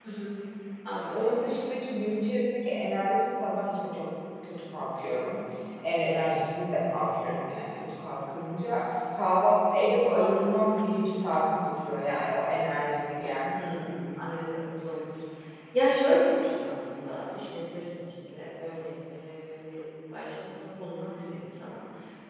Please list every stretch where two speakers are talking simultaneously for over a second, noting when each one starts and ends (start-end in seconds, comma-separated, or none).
none